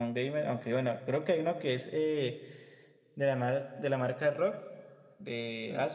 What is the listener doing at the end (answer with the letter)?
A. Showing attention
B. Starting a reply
B